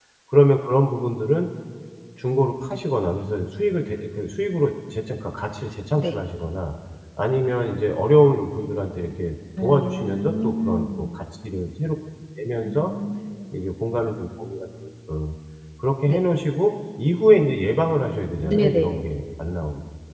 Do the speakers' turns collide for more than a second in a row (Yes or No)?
Yes